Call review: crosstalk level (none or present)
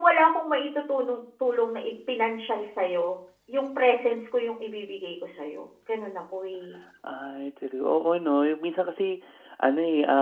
none